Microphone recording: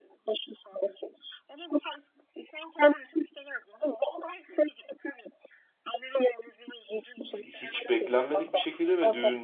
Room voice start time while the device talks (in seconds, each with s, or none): 7.4 s